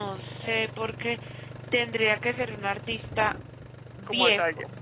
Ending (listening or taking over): taking over